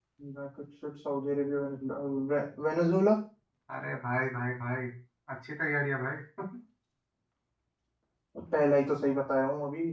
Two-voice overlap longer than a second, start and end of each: none

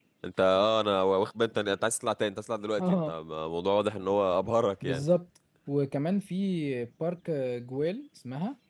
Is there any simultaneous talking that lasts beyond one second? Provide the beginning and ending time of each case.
none

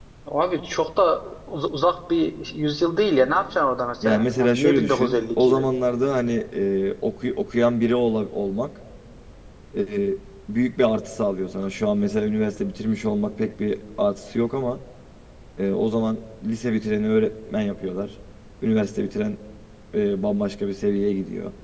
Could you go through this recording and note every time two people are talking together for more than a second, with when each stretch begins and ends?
4.0-5.7

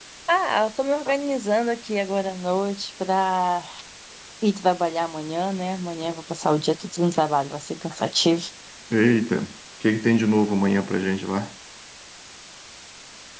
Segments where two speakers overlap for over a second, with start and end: none

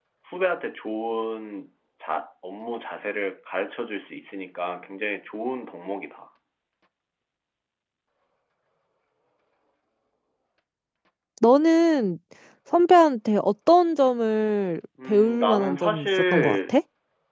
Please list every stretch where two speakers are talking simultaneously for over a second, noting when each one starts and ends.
15.1-16.7

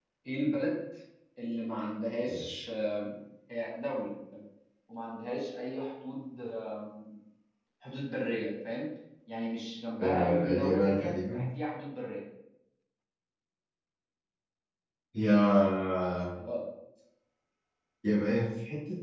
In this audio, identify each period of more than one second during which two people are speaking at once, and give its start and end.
10.0-11.5

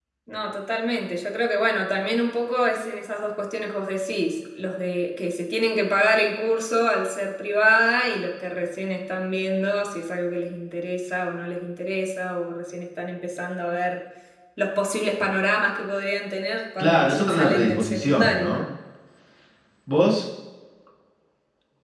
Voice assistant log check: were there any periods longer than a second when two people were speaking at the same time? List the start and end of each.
16.8-18.6

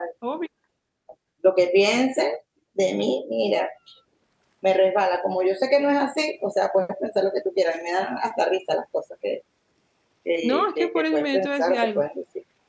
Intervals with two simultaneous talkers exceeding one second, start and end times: 10.4-12.0

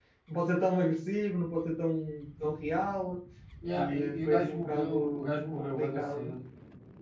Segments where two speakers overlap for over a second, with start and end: 3.7-6.3

